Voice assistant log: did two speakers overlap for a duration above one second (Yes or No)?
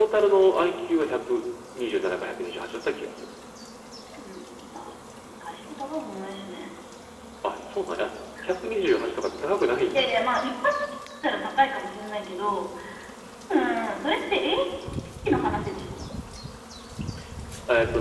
No